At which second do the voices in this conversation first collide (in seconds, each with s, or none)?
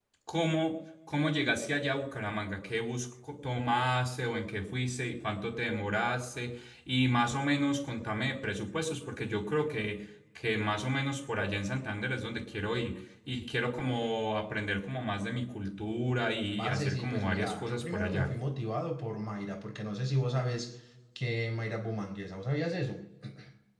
16.6 s